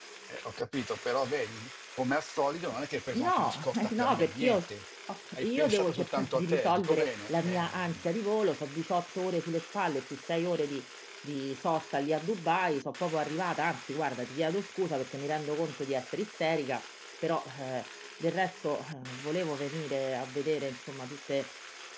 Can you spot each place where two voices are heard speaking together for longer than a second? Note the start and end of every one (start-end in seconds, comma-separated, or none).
3.1-4.6, 5.3-8.0